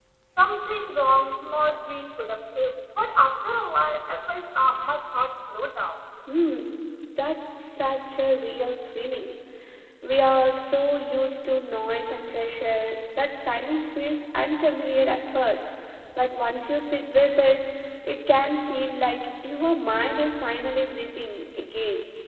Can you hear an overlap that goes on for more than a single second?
No

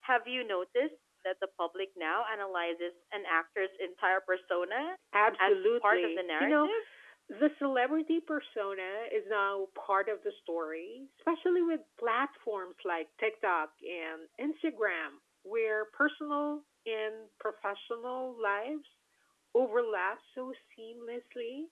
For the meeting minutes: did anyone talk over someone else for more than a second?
Yes, from 5.4 s

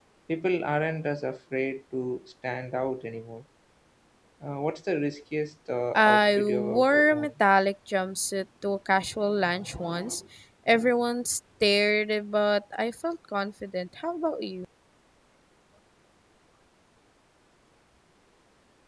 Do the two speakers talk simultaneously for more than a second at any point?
Yes, from 5.9 s

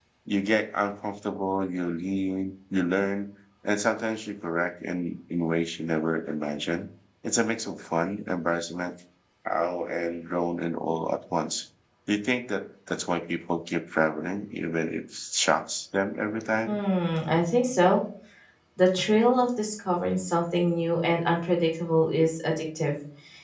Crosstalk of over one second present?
No

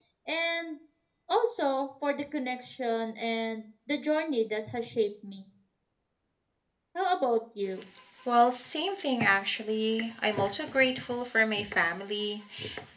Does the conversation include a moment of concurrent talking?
No

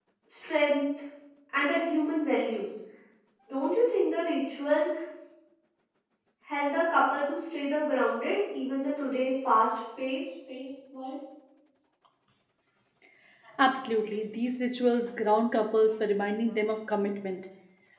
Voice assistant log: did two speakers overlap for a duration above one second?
No

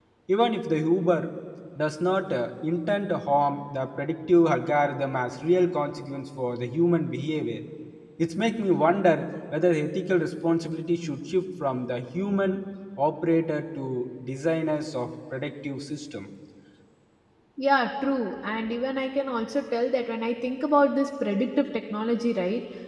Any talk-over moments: No

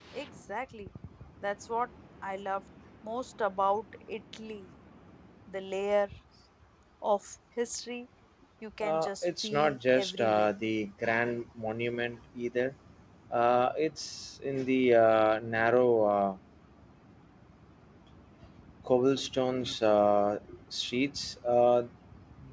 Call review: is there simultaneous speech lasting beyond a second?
Yes, from 8.8 s

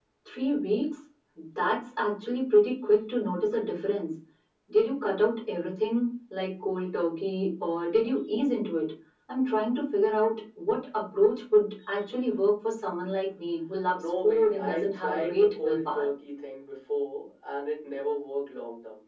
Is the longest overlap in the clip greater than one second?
Yes, from 13.9 s

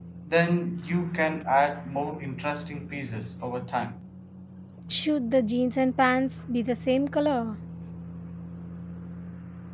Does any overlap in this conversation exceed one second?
No

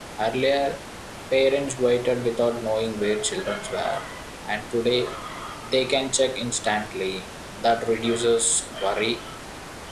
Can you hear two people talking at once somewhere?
No

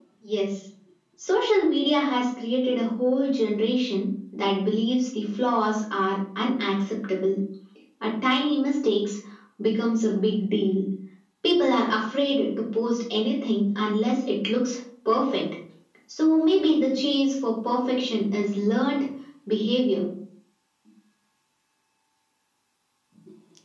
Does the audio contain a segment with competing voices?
No

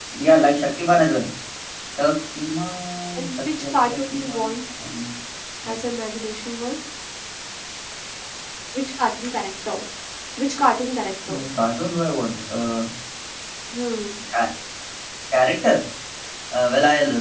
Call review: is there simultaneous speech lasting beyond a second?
Yes, from 3.2 s

